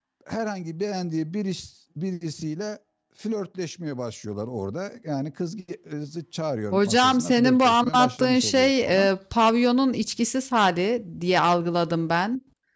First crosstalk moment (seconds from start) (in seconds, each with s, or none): 6.7 s